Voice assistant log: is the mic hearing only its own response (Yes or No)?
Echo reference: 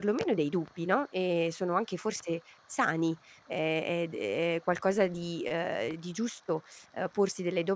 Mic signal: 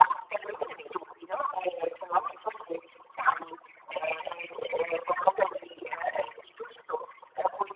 Yes